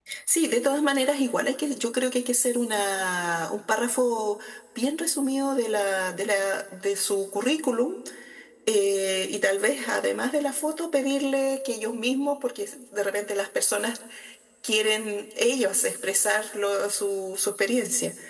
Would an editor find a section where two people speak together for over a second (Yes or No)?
No